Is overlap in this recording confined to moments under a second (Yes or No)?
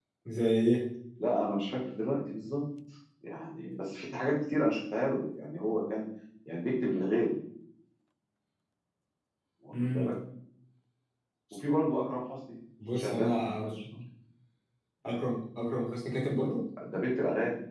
Yes